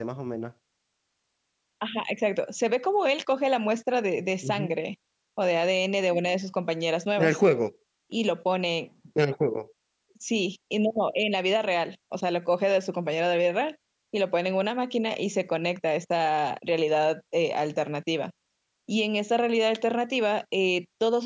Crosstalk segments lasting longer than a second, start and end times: none

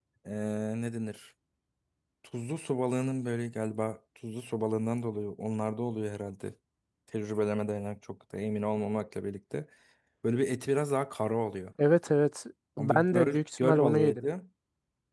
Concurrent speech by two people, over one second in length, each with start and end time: 12.8-14.2

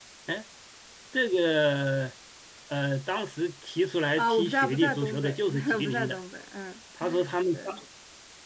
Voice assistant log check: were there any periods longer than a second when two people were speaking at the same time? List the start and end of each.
4.2-6.2

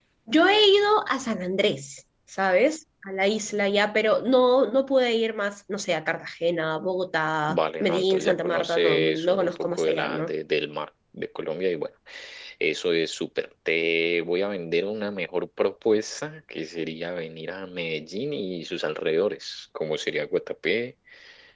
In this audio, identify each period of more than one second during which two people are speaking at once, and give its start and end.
7.5-10.3

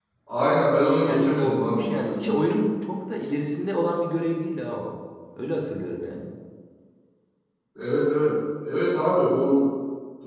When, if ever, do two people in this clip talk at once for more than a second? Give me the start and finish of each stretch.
1.1-2.4

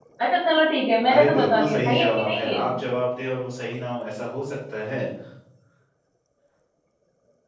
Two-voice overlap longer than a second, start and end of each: 1.1-2.6

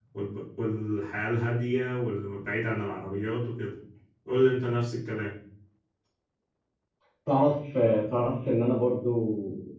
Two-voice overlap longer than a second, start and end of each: none

